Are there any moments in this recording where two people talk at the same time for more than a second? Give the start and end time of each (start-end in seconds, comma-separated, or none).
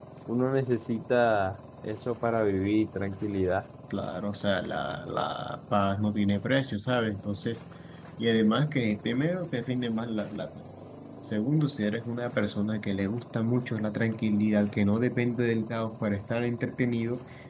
none